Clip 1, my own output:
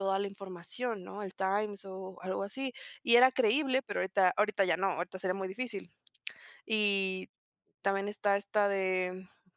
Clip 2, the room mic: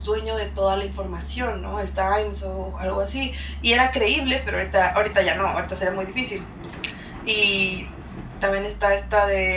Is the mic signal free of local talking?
Yes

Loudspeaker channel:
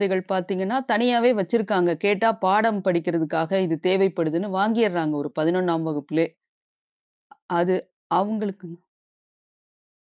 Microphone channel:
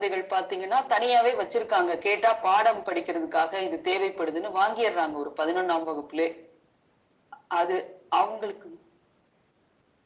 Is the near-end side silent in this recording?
Yes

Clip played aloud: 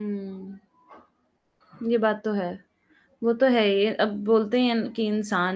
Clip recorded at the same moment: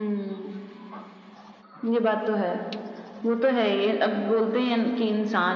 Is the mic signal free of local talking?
Yes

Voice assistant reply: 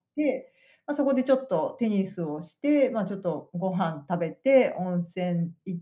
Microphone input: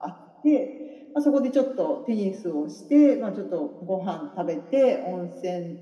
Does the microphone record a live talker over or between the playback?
No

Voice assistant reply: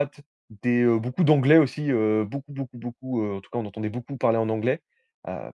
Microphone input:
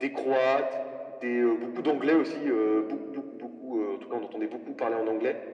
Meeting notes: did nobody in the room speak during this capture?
Yes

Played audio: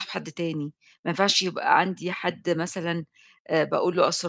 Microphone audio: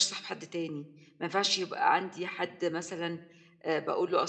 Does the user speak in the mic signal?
No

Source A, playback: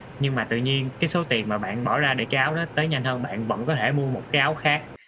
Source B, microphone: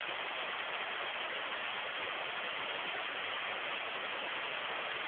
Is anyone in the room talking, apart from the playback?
No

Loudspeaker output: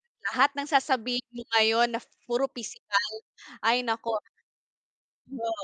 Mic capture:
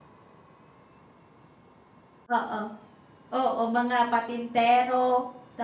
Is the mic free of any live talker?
No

